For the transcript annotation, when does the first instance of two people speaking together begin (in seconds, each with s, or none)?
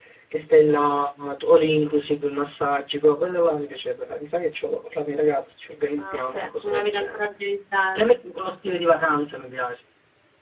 6.0 s